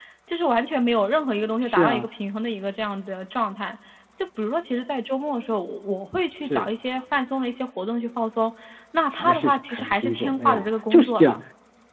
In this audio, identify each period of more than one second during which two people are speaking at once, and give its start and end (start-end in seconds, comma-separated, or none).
9.1-11.4